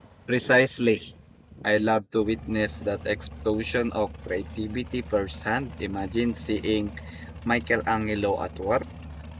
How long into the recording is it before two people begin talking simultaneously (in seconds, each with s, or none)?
none